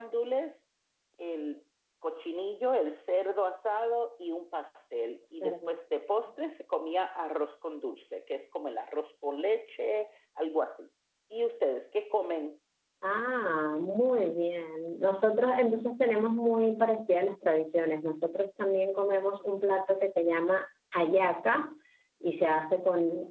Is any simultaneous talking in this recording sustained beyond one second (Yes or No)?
No